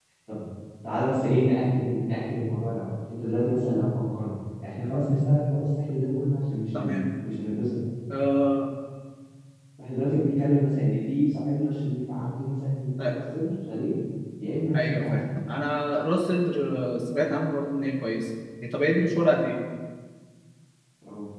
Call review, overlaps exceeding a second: none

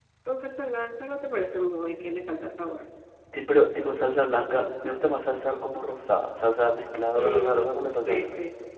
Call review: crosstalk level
present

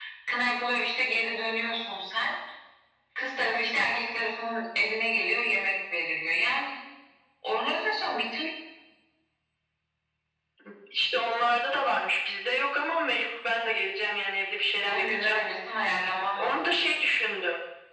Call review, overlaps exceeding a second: none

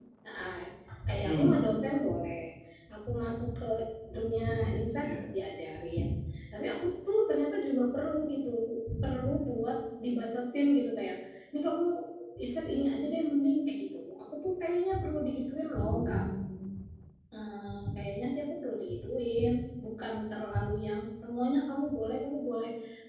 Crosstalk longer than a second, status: none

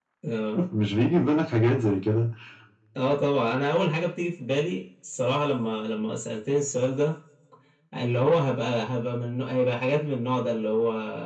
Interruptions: none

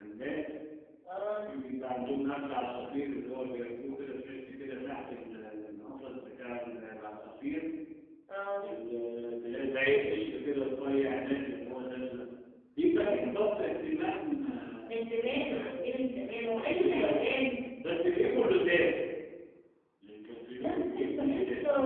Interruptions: present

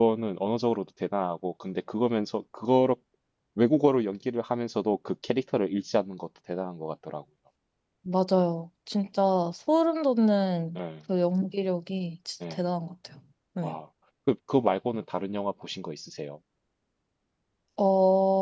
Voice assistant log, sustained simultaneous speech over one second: none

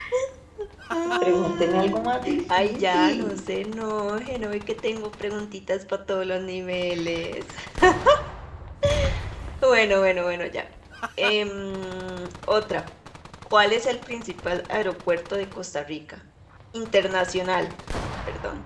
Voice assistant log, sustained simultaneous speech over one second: present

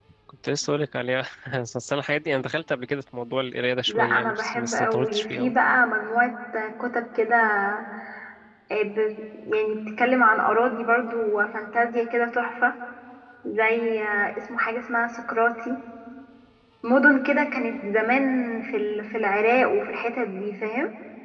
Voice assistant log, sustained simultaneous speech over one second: present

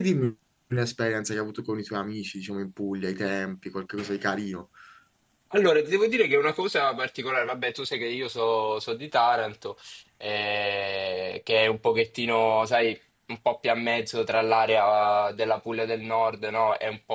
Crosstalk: none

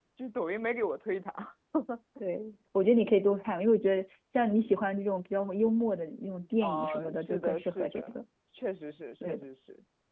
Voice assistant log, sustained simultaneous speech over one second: present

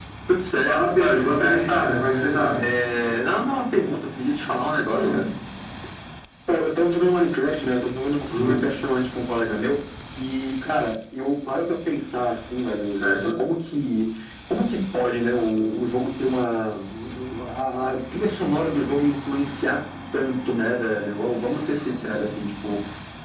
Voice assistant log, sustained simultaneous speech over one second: present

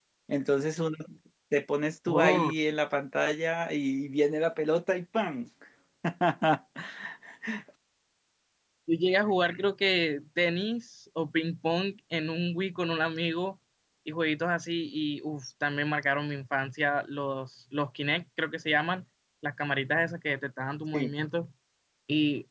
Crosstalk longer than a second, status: none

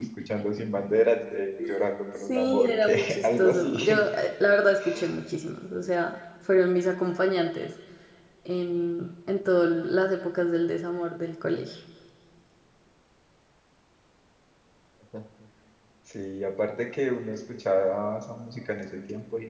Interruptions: present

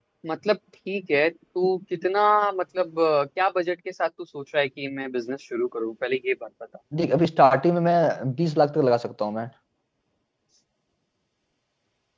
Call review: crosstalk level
none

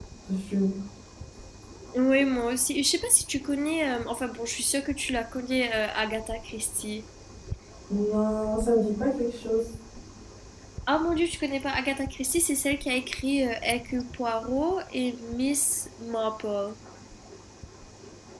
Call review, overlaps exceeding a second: none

